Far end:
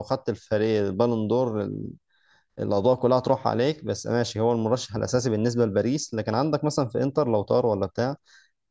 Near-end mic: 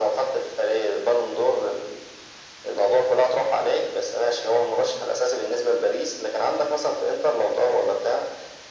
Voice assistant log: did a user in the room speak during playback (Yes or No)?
No